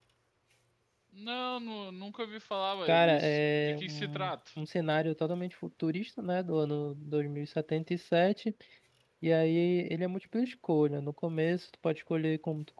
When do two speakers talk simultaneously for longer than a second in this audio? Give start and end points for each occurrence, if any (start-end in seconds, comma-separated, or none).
2.9-4.3